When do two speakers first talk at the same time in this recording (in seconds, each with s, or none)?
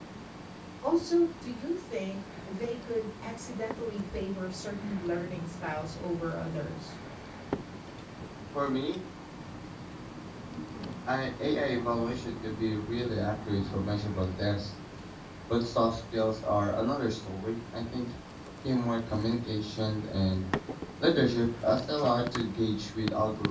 none